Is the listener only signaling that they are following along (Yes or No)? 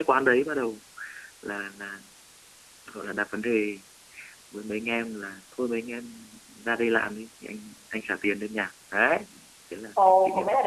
No